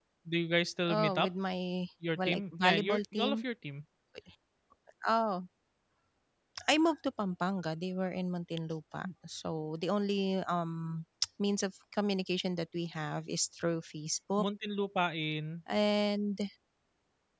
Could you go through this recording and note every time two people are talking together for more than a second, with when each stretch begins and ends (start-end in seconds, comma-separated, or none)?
2.2-3.4